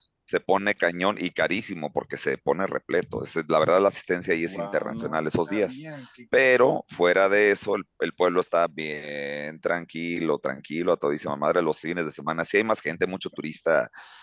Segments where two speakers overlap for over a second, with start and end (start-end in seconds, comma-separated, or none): 4.5-5.8